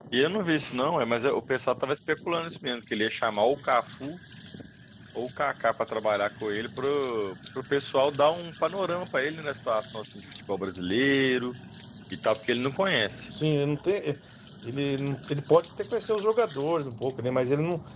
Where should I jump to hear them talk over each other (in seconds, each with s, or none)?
none